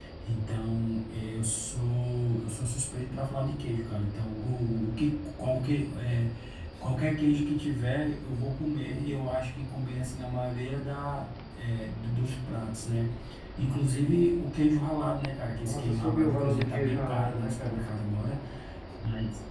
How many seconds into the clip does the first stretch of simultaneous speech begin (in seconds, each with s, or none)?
15.6 s